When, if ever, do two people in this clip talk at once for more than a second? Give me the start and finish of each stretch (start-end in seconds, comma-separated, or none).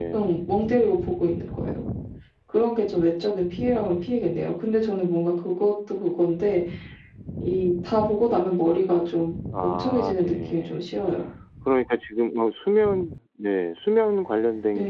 9.6-10.8